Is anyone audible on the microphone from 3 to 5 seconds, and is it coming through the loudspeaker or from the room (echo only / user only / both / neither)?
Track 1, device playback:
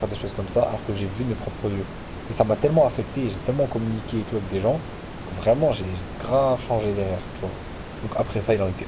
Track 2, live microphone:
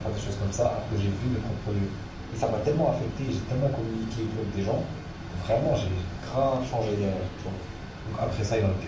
echo only